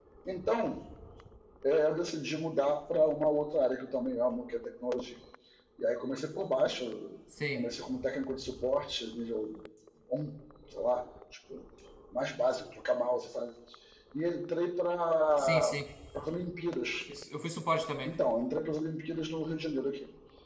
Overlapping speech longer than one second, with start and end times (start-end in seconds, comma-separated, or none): none